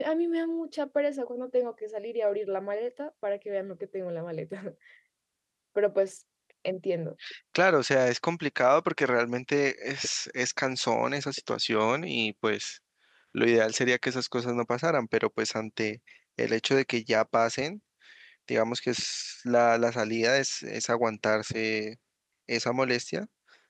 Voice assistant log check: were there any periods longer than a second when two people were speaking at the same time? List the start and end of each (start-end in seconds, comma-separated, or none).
none